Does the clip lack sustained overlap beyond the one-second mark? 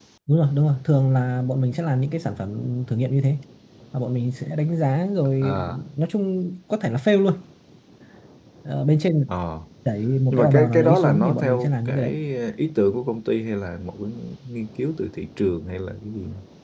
No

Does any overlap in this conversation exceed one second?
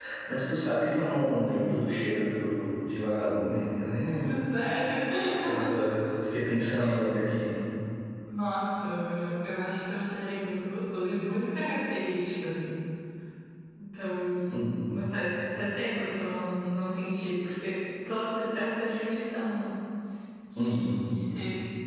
No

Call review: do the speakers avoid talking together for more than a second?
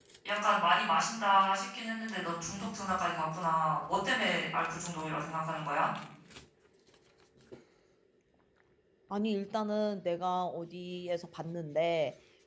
Yes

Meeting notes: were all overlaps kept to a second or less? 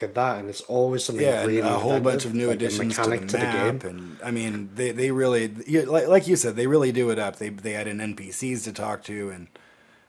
No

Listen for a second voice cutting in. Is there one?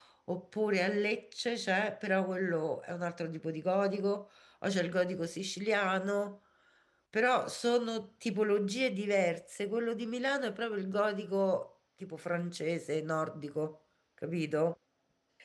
No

